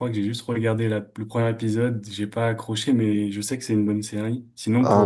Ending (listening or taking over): taking over